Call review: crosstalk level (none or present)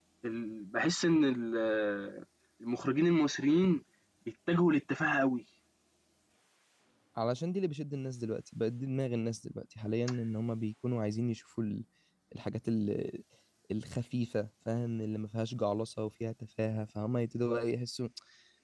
none